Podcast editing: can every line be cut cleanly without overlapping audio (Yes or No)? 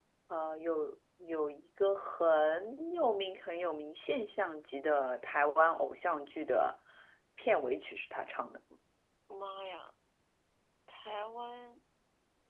Yes